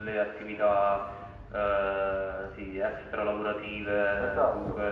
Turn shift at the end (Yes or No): No